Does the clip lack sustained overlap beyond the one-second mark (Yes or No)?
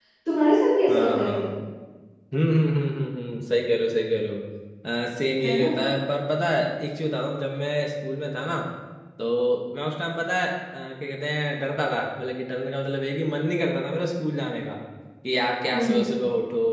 Yes